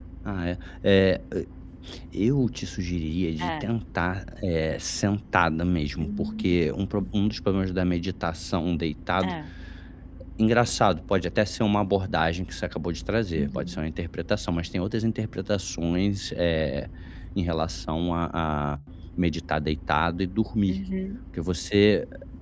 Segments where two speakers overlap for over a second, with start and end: none

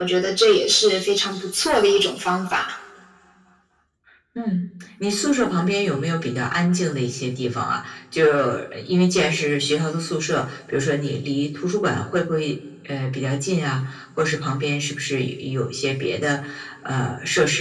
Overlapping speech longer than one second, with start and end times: none

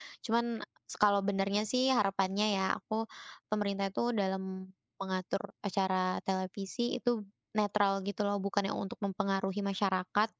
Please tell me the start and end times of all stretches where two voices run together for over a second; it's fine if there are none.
none

